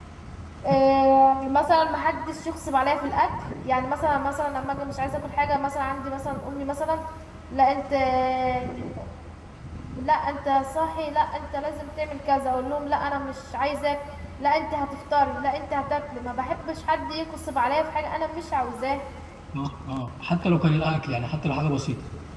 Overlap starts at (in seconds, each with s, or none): none